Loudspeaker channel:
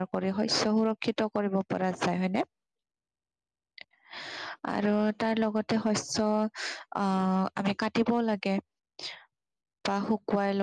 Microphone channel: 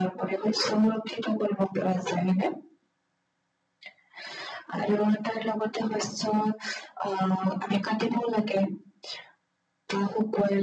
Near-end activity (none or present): none